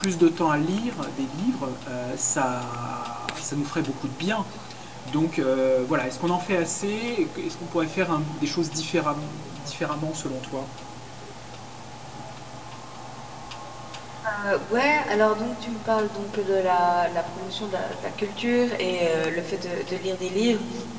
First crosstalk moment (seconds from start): none

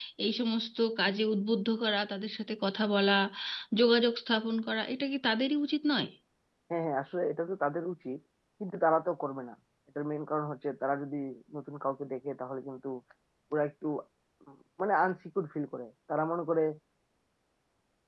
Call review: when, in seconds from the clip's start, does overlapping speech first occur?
none

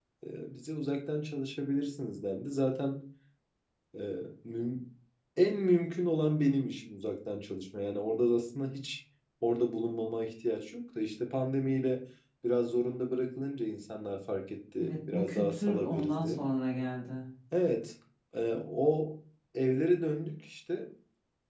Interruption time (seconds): 15 s

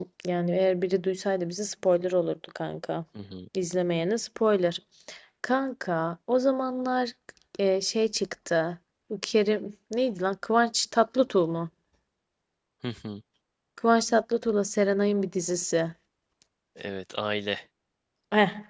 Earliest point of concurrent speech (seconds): none

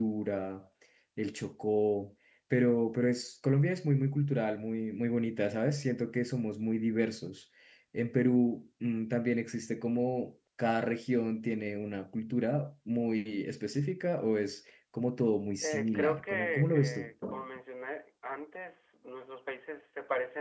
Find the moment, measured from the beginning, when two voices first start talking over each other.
16 s

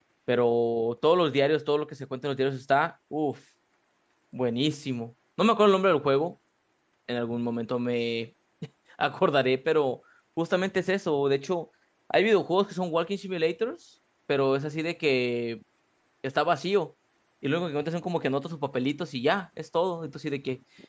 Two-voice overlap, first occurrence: none

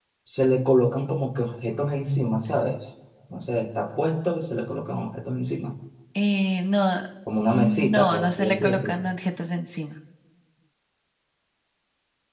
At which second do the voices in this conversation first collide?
7 s

